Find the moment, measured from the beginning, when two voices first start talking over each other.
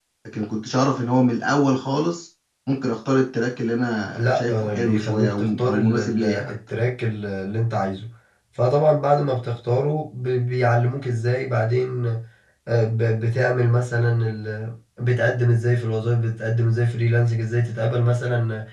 4.2 s

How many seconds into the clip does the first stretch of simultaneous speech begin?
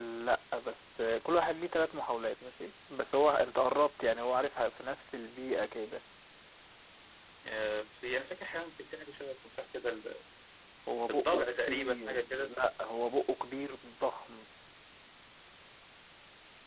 11.1 s

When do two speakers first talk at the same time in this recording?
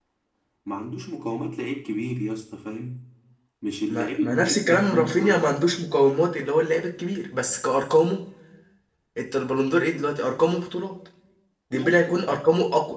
3.9 s

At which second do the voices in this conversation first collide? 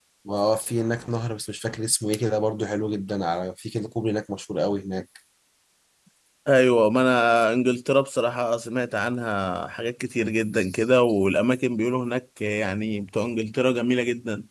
none

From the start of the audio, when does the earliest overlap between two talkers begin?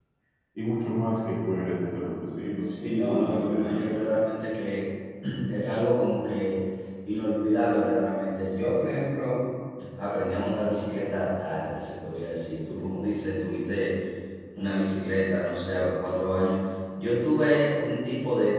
2.6 s

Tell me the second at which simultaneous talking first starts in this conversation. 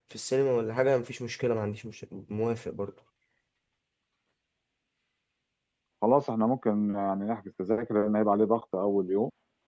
none

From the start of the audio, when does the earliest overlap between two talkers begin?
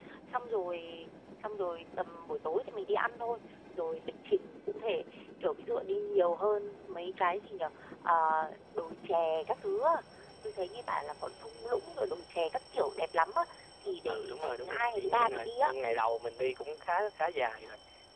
14.1 s

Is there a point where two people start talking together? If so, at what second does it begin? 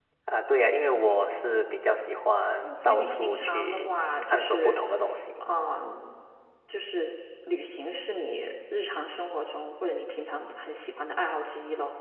2.6 s

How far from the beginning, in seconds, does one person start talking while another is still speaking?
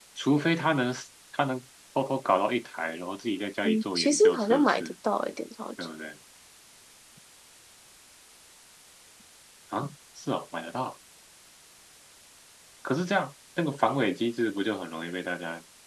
3.6 s

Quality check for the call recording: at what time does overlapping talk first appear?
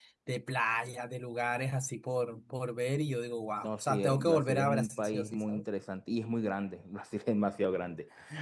3.6 s

